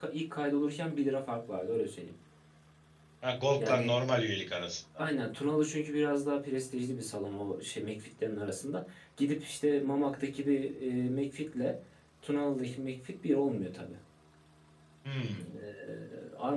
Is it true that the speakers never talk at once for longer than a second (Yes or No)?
Yes